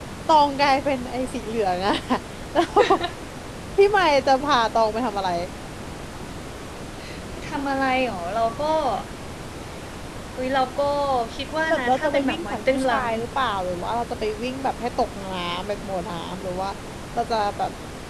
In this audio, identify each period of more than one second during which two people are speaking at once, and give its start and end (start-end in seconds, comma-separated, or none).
11.7-13.0